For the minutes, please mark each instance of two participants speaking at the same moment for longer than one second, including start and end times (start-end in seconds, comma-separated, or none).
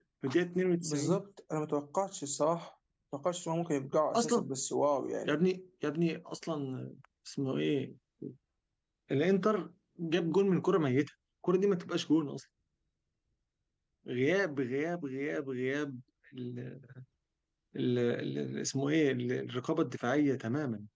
none